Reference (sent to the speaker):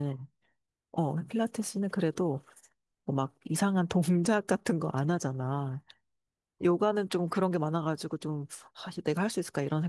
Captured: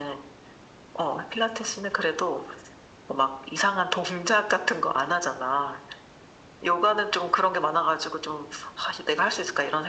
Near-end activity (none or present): none